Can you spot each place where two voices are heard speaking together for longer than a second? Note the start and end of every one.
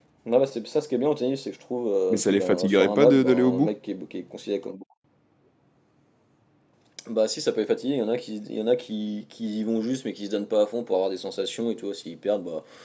2.1-3.7

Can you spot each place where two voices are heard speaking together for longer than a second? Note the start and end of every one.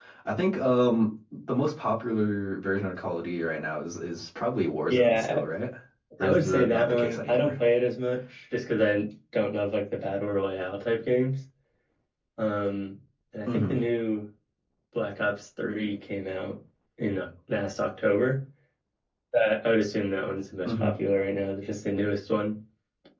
6.2-7.6

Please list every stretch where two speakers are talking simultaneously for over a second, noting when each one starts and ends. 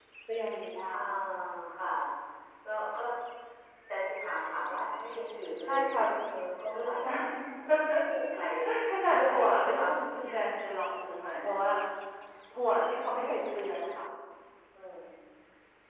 9.0-10.4

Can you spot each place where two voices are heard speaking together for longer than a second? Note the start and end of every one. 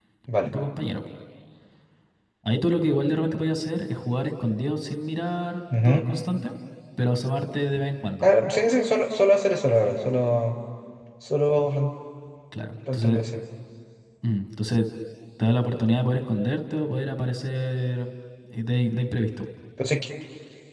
none

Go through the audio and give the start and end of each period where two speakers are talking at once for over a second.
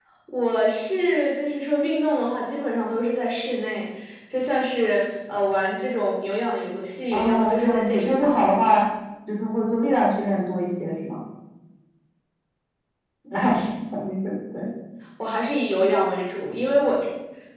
7.1-8.6

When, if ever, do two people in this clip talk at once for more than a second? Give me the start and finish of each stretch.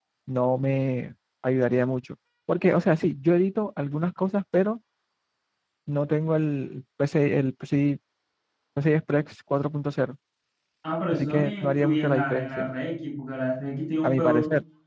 11.1-12.7

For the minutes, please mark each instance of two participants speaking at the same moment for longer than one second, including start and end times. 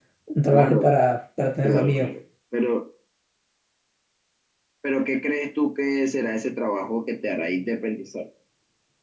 none

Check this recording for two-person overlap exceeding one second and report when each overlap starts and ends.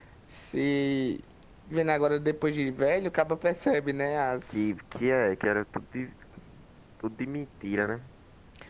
none

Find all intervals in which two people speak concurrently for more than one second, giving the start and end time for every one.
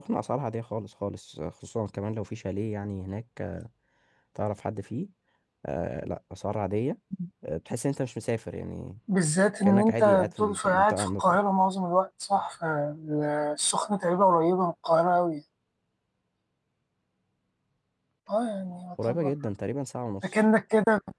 9.6-11.4

